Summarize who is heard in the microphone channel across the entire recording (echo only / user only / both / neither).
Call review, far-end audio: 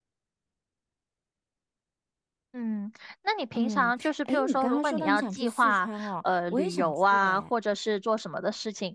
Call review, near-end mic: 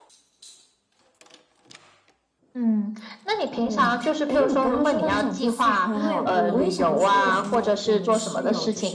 both